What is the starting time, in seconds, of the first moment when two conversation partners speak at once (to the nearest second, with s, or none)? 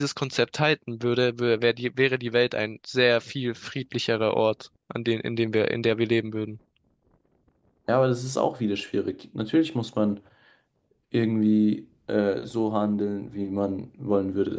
none